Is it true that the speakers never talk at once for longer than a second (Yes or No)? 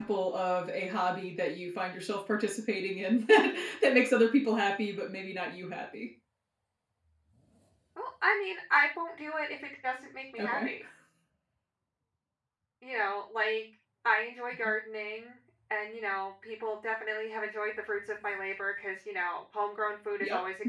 Yes